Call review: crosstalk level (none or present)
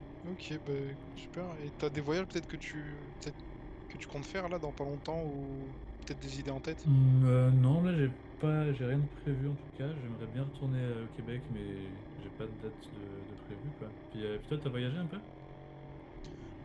none